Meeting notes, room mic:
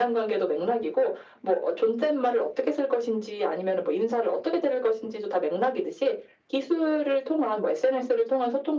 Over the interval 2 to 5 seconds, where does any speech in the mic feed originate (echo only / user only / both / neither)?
echo only